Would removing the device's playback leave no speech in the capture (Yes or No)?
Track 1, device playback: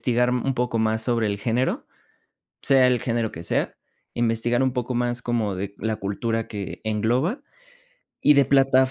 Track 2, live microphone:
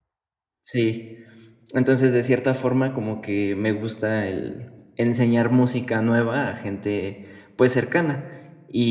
No